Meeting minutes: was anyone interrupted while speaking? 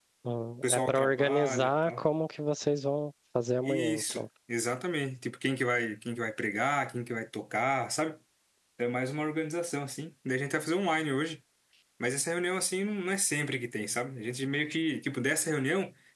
Yes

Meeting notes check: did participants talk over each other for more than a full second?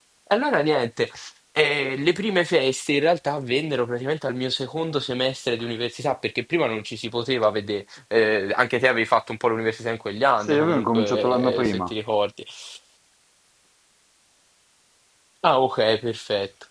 Yes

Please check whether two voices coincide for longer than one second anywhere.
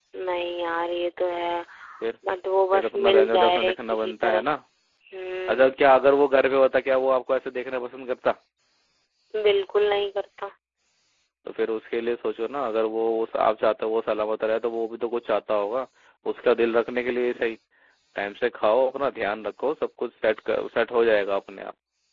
Yes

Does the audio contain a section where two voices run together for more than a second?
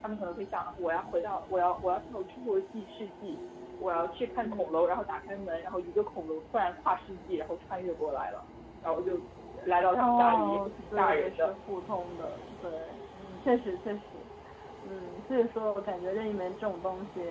Yes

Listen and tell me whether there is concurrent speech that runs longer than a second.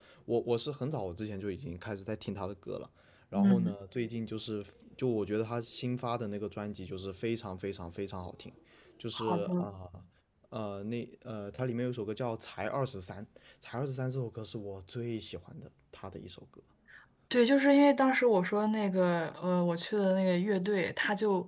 No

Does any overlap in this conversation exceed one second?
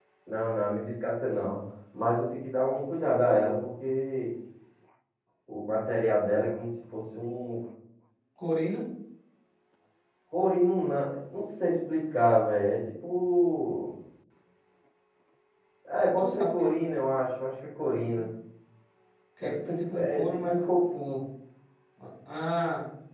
Yes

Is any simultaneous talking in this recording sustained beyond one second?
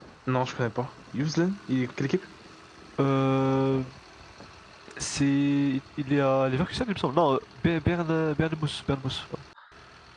No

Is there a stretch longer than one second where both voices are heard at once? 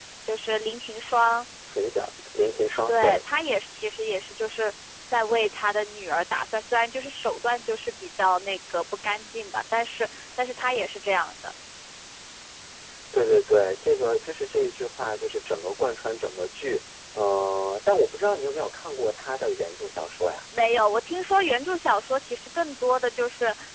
No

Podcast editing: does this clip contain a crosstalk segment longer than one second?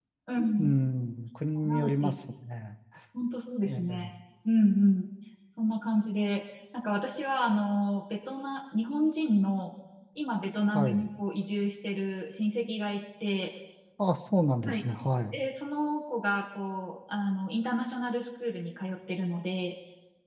No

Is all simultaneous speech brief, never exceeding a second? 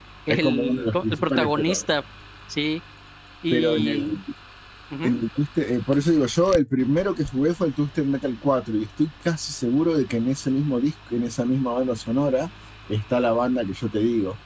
No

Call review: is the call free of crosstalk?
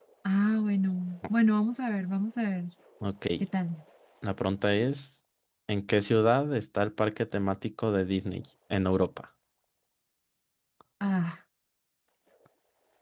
Yes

